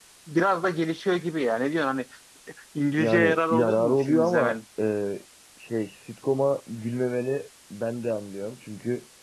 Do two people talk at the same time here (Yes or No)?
Yes